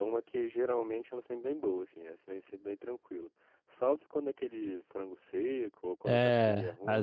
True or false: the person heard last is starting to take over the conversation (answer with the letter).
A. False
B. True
B